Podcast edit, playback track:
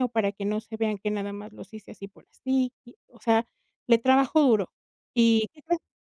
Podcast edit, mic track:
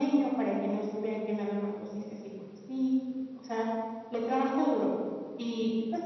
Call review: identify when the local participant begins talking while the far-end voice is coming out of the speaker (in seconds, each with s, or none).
none